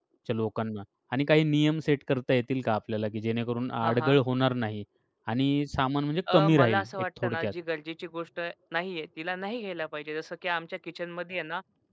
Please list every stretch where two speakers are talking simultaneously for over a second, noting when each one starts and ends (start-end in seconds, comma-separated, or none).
6.3-7.5